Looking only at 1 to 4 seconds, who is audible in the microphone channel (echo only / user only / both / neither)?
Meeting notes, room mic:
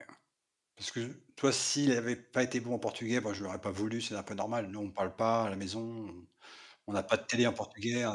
user only